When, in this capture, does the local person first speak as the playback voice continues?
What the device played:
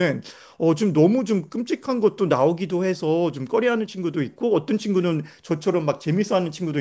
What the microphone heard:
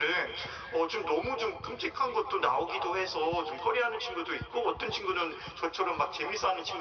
none

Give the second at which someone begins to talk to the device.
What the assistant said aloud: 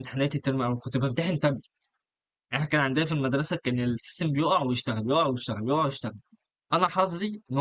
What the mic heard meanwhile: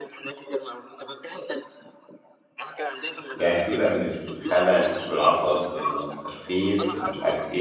3.3 s

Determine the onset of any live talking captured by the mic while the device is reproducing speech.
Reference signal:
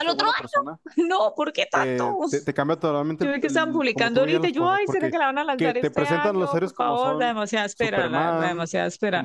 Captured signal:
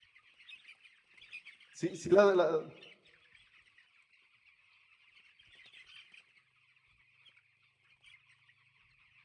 1.7 s

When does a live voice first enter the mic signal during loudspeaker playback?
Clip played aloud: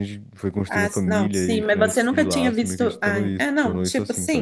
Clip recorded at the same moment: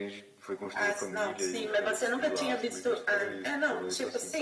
none

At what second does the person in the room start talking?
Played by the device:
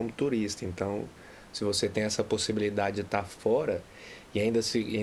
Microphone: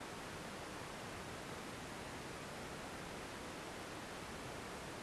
none

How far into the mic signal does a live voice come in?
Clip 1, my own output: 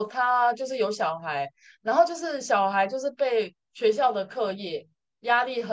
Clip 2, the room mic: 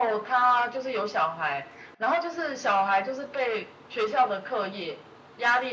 none

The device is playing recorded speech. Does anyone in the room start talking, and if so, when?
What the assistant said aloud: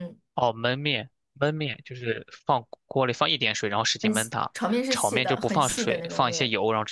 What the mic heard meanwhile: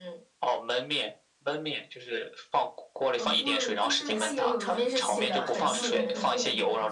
3.1 s

